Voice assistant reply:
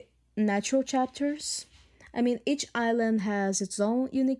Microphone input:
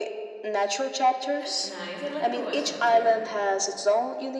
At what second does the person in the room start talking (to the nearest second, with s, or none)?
1 s